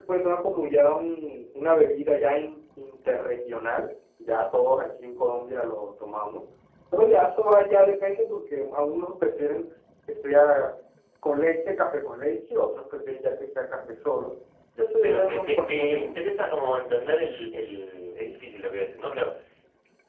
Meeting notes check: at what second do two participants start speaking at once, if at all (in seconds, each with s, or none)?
15.0 s